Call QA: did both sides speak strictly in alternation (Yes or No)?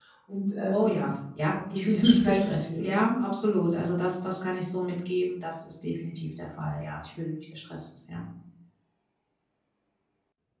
No